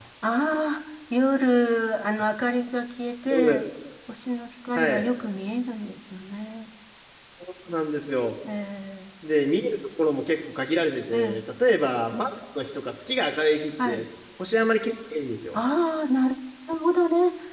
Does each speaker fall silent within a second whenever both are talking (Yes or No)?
Yes